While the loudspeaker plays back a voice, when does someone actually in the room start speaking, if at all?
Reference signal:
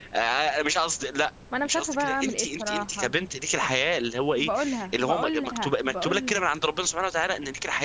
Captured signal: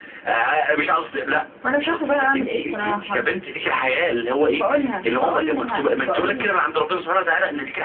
none

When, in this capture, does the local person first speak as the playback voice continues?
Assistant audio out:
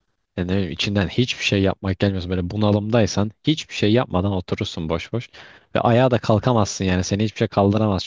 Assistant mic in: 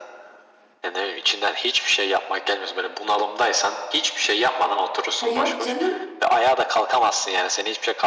5.2 s

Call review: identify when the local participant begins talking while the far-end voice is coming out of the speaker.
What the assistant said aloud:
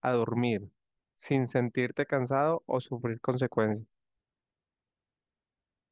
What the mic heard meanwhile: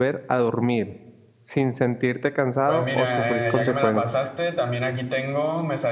2.6 s

